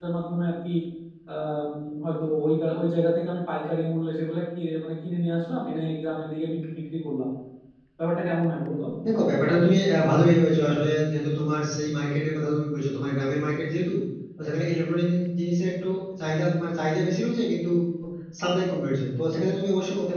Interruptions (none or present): none